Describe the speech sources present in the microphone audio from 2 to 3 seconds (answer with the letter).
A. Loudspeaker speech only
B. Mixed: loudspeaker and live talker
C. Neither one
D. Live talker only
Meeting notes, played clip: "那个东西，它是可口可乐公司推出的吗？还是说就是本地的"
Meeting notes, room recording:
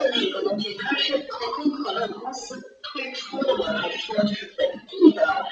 A